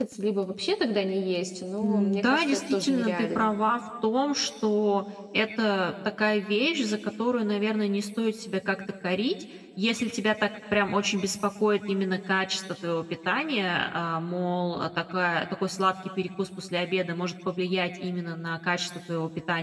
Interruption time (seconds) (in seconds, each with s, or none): 1.8 s